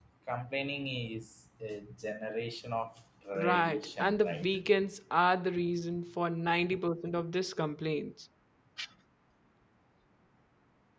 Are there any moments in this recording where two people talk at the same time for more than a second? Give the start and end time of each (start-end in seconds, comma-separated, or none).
3.4-4.6